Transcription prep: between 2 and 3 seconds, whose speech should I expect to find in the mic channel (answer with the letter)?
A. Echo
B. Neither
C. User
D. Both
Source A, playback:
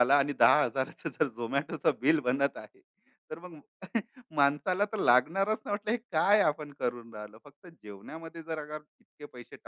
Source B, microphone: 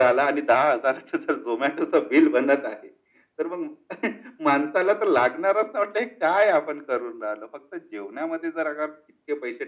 A